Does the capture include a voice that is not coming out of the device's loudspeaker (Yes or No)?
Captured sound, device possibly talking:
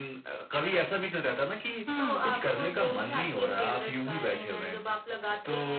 Yes